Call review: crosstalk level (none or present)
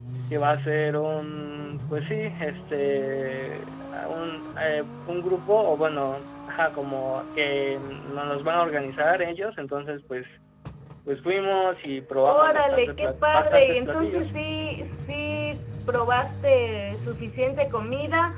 present